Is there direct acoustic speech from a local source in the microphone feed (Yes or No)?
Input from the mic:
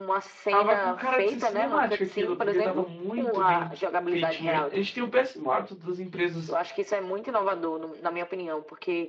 Yes